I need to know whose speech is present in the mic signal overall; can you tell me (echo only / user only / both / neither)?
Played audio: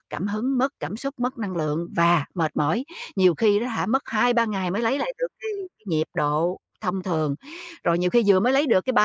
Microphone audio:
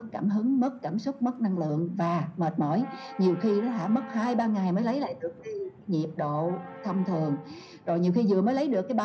echo only